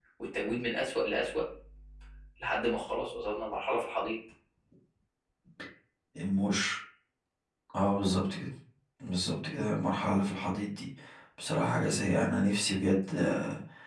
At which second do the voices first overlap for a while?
none

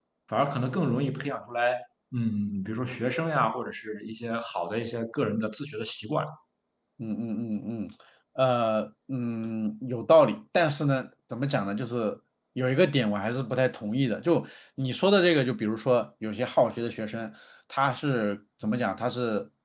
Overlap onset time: none

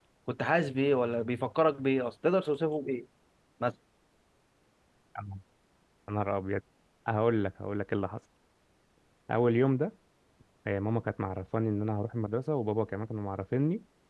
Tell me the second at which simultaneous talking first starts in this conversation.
none

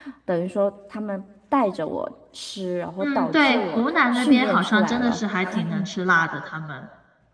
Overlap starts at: 3 s

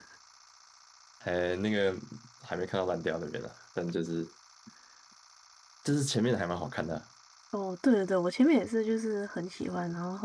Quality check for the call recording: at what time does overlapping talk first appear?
none

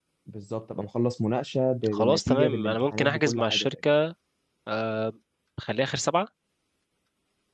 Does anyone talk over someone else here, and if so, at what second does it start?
2 s

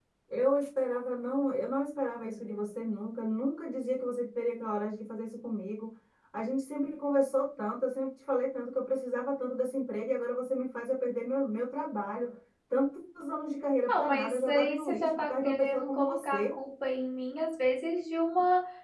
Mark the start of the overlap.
14 s

